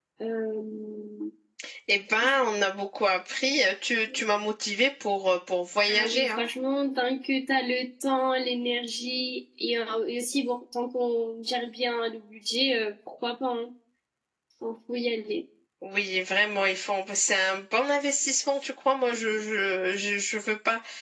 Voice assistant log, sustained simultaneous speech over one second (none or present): none